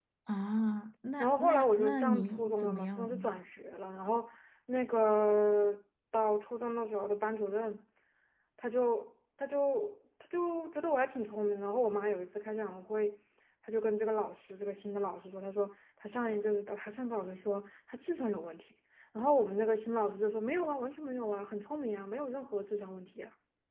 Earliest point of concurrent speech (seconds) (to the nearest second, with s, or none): 1 s